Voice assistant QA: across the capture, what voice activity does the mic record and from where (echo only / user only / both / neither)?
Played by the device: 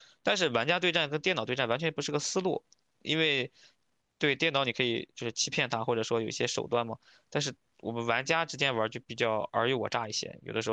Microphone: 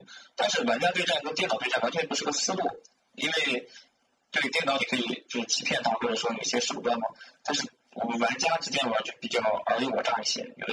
echo only